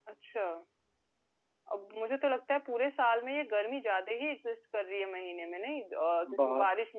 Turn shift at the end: No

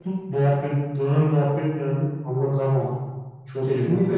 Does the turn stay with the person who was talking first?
No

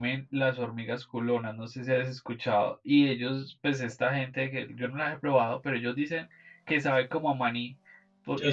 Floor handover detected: No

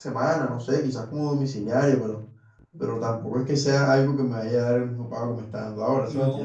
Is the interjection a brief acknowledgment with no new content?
No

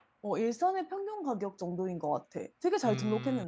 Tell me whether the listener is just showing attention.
No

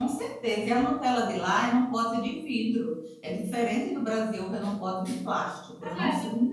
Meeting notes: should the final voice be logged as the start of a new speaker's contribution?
Yes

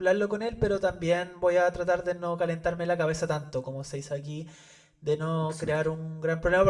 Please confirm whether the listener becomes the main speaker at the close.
No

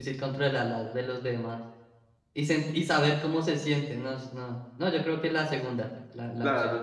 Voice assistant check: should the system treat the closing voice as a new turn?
Yes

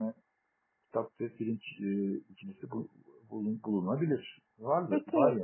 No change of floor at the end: No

